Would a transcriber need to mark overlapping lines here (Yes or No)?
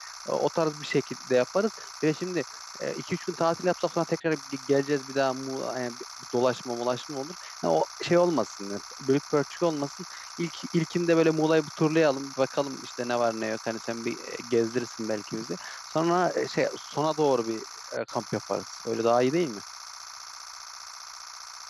No